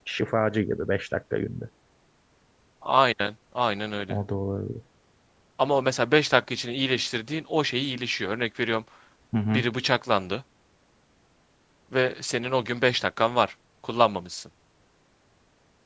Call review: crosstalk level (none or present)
none